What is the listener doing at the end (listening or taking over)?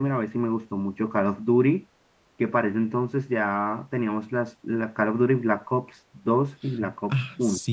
taking over